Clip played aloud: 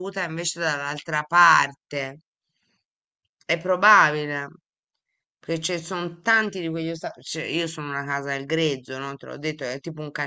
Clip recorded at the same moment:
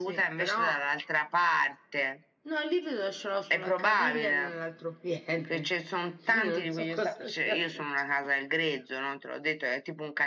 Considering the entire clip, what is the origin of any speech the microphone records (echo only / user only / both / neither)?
both